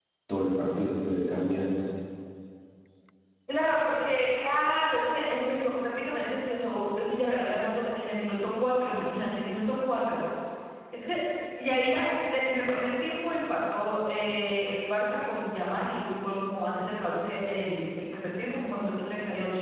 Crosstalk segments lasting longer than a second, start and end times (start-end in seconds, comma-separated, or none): none